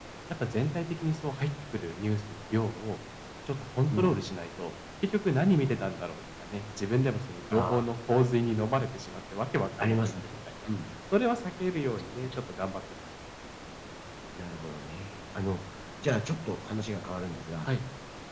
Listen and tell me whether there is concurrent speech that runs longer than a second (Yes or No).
No